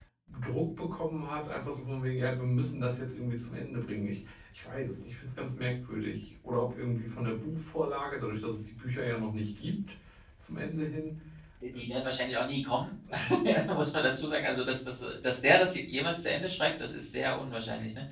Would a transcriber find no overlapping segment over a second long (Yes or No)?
Yes